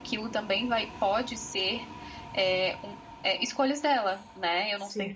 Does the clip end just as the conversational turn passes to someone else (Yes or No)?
Yes